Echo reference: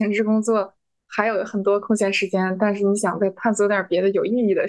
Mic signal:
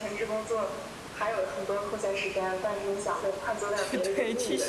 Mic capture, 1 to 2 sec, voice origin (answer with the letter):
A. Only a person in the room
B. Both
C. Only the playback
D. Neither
C